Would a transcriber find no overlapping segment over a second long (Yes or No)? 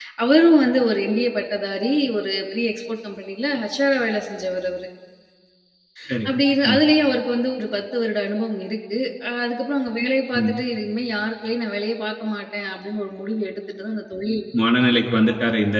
Yes